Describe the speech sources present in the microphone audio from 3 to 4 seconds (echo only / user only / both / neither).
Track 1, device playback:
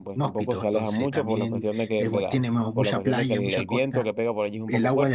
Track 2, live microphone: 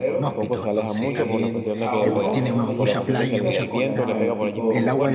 both